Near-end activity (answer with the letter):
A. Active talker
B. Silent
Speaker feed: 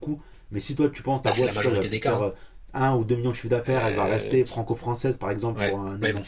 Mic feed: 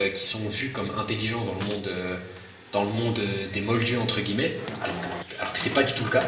A